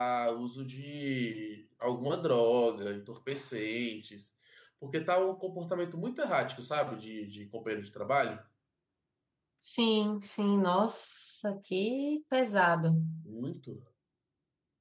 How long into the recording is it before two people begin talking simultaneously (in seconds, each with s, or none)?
none